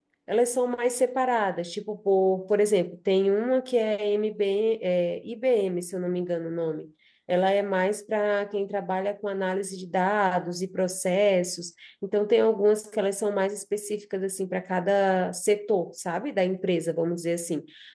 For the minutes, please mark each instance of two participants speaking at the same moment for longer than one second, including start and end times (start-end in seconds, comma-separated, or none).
none